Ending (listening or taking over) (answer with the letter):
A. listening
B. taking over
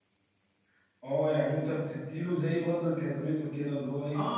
B